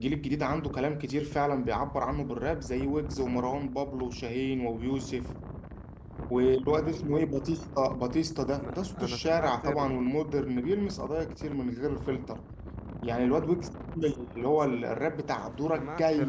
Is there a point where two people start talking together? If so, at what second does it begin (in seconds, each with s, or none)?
8.6 s